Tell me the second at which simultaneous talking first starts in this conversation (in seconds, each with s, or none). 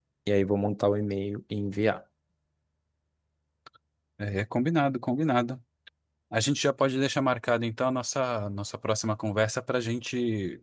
none